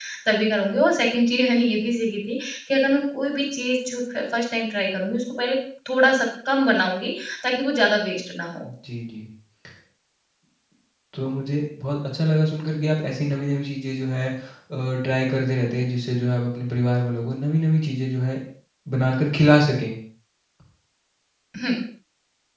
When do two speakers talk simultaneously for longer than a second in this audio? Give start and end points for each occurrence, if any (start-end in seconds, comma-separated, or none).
none